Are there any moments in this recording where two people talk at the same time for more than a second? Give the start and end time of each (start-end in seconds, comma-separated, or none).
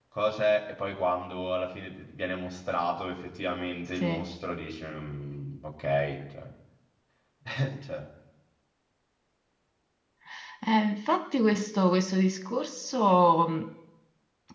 none